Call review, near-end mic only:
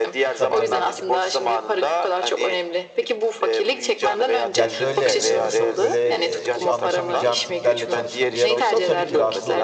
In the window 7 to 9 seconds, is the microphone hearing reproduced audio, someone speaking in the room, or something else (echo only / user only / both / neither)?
both